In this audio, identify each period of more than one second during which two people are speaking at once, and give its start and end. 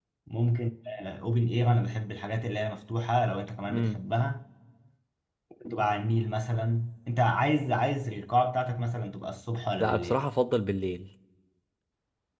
none

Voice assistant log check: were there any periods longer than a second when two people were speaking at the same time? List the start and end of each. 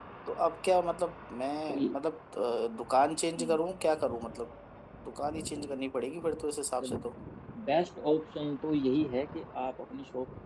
none

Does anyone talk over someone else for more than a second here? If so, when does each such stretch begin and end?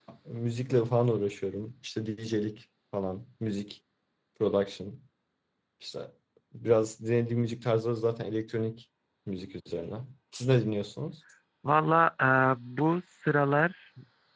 none

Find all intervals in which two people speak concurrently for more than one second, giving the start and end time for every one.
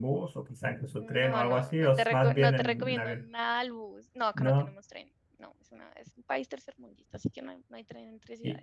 1.0-3.2

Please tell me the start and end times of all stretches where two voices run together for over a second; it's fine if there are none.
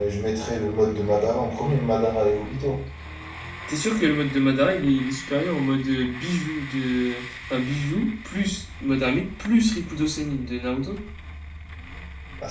none

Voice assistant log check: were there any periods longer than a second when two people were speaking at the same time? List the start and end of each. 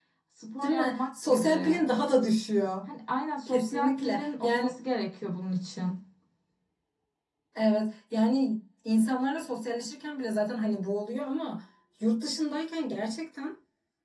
0.6-1.8, 3.5-4.8

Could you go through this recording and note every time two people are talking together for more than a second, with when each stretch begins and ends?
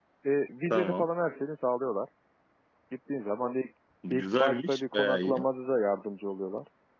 4.1-5.4

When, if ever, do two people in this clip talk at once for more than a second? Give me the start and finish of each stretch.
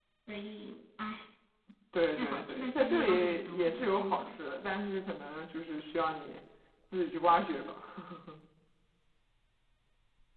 2.2-4.3

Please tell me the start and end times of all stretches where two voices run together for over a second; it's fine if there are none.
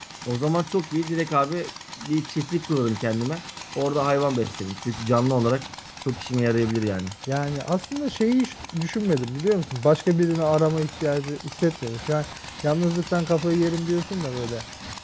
none

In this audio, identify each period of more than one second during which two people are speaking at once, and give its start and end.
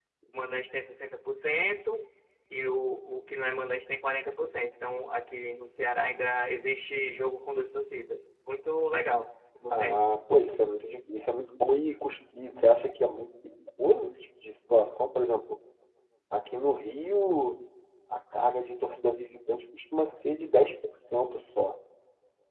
none

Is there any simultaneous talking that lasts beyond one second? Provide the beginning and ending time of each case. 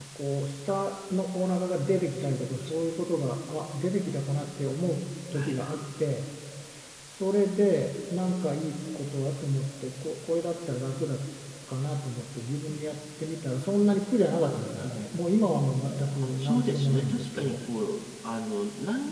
16.2-17.6

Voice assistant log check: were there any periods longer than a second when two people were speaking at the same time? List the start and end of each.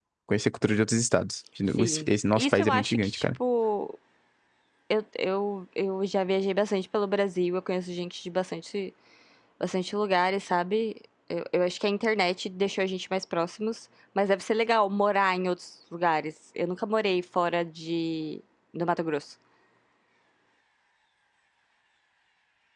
1.8-3.2

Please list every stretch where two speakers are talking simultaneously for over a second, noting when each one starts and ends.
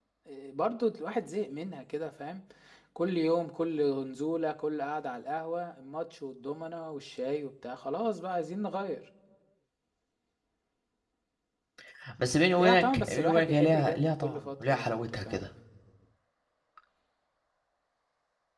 12.6-15.5

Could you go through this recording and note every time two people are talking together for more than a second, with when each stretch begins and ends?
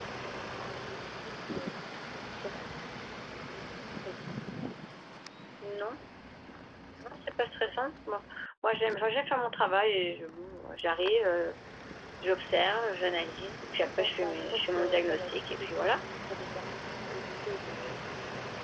13.7-16.0

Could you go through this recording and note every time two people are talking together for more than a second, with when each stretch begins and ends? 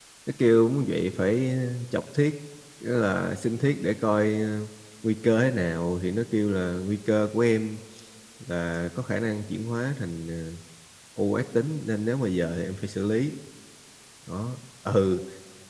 none

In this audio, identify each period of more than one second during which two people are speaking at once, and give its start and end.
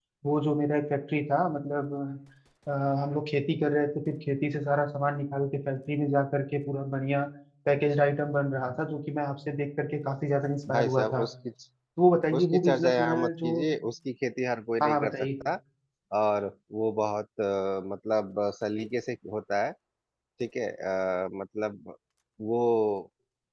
12.4-13.7

